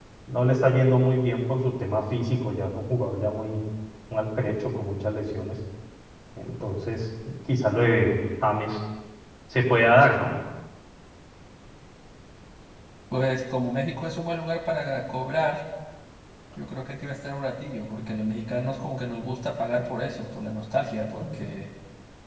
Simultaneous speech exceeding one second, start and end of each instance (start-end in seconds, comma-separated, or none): none